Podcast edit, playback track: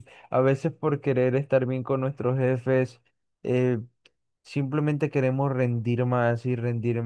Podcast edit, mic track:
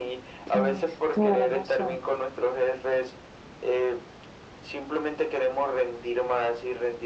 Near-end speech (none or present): present